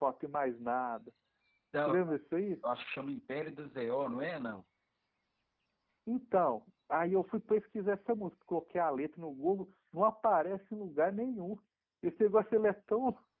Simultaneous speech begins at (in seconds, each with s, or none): none